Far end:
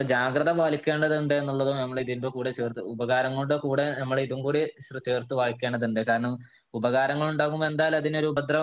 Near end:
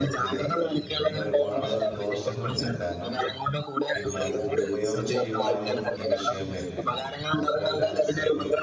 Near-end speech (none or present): present